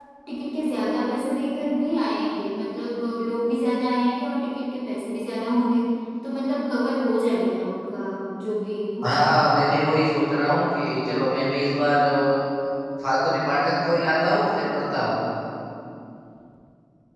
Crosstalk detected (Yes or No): No